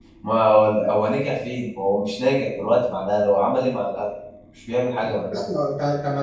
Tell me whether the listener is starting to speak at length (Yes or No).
Yes